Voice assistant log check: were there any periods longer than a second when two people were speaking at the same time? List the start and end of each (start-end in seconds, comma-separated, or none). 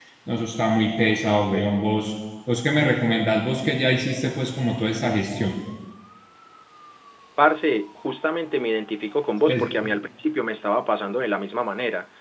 none